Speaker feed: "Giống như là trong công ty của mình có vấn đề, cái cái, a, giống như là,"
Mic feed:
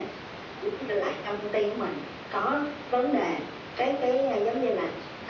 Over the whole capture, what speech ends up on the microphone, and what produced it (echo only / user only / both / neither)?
echo only